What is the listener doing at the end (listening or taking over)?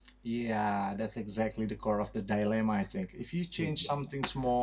listening